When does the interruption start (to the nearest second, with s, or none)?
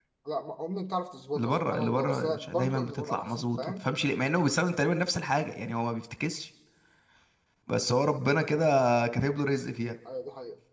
1 s